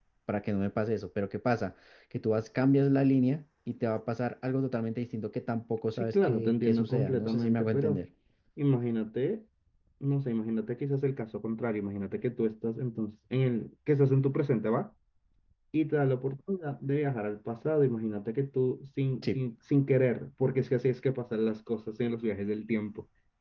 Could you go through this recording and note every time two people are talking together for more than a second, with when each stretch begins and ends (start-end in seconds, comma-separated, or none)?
6.1-8.0